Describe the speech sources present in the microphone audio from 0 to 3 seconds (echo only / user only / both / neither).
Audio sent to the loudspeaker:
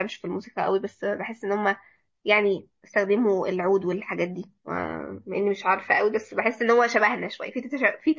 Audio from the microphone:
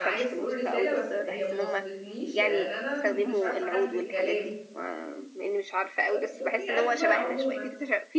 both